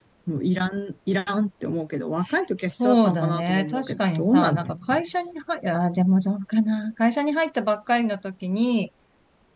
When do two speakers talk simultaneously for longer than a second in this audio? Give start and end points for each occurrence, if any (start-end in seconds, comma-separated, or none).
2.6-5.0